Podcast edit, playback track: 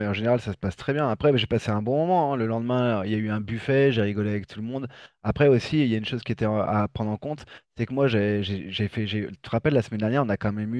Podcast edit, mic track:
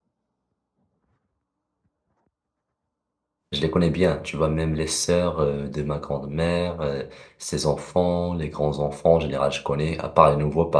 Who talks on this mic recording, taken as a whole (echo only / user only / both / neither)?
user only